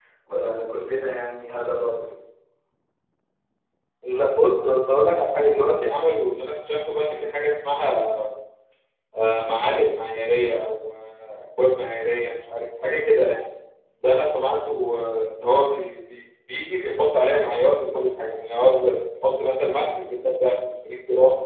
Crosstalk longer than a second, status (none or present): none